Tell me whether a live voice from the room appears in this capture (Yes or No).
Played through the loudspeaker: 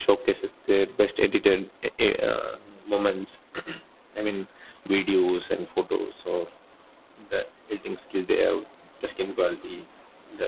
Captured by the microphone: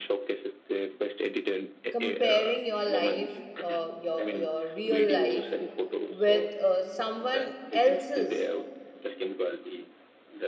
Yes